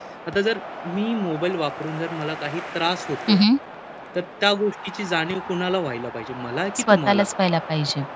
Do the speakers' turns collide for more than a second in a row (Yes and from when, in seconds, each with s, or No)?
No